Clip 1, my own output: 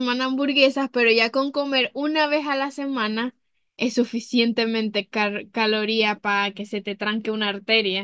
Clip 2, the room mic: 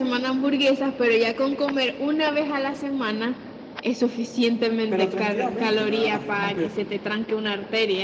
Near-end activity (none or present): present